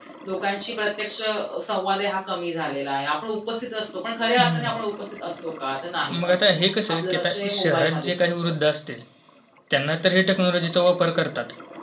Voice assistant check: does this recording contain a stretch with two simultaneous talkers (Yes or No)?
Yes